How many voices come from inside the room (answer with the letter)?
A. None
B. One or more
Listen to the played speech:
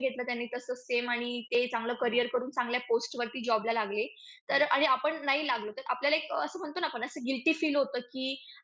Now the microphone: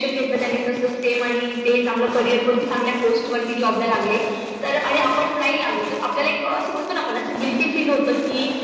A